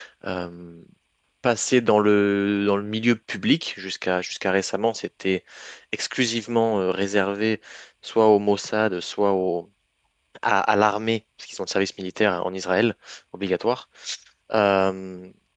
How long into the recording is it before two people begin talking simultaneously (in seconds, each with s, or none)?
none